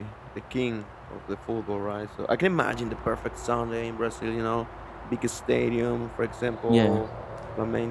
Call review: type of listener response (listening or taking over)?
listening